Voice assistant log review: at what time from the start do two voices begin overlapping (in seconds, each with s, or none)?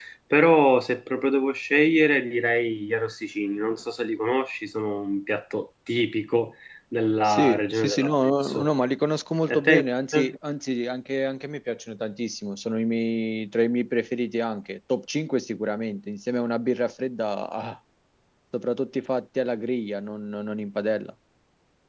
7.3 s